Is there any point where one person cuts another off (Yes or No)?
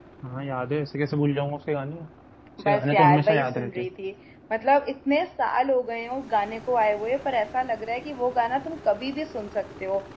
Yes